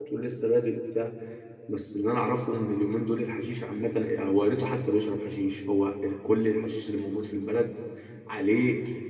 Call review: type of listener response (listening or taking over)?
listening